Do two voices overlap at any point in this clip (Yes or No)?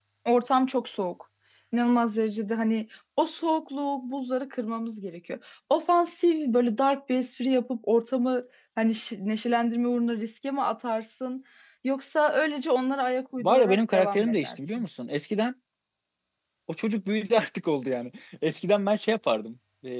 Yes